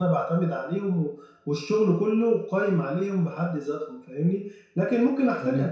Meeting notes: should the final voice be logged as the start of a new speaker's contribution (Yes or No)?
No